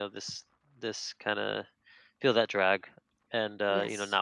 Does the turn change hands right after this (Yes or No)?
No